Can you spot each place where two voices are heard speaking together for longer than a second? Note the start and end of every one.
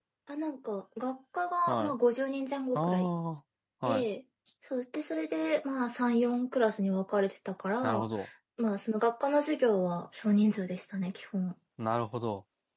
none

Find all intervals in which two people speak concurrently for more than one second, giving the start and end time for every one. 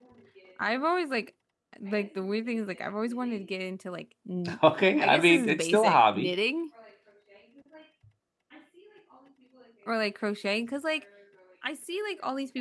5.0-6.3

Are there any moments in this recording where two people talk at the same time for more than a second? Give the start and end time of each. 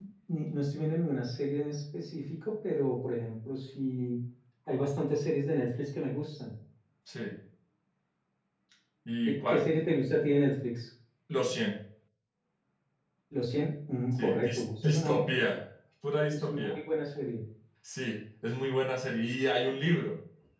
14.2-15.4

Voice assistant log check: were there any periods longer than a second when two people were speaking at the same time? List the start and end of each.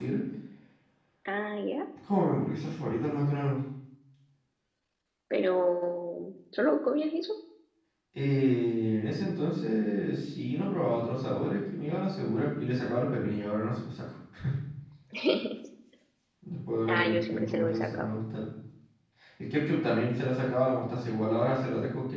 16.9-18.1

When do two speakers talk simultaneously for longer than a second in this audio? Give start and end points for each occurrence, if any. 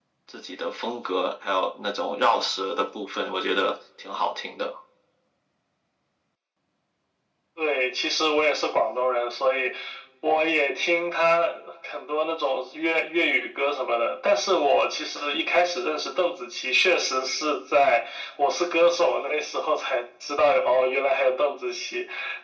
none

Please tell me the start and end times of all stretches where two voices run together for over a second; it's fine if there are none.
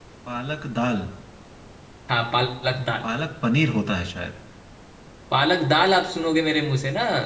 none

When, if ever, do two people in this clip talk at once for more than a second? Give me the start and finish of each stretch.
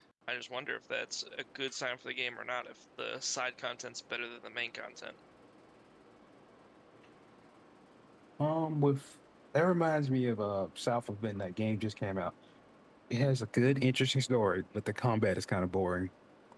none

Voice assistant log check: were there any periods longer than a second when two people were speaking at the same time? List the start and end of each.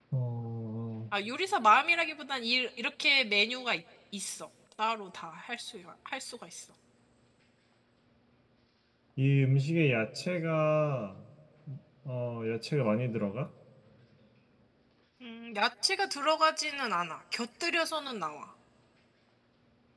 none

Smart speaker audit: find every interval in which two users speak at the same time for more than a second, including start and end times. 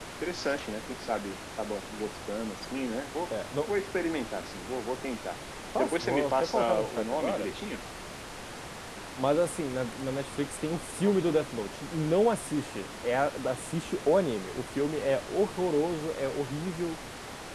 5.8-7.5

